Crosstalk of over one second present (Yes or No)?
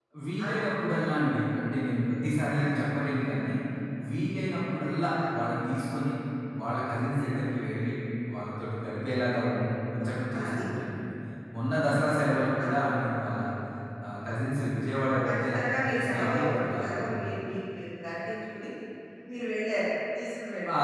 Yes